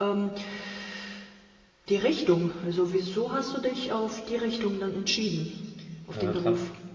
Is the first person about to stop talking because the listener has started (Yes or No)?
Yes